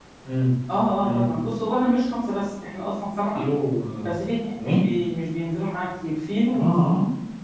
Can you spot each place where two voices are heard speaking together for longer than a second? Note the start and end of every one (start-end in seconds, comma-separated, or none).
none